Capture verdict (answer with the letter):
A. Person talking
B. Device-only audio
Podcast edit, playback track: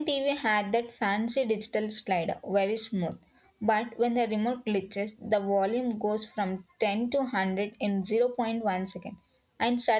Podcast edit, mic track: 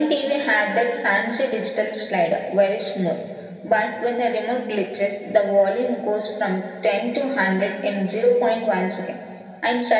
B